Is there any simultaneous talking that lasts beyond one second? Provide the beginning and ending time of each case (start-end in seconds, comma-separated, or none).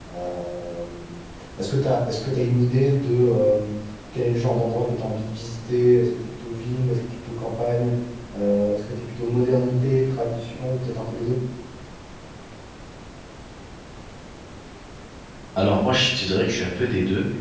none